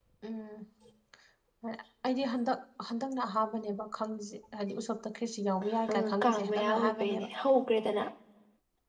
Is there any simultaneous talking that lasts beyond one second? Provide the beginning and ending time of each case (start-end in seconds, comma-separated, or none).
5.9-7.3